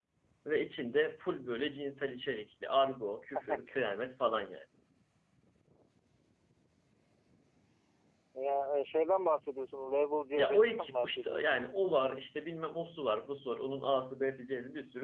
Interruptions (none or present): present